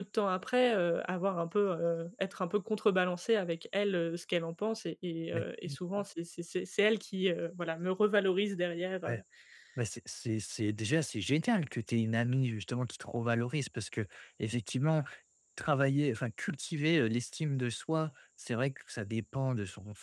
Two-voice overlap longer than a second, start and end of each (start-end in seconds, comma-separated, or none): none